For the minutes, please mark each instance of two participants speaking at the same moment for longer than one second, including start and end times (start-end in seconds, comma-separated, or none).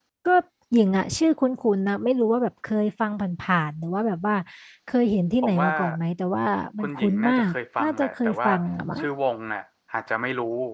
6.8-8.5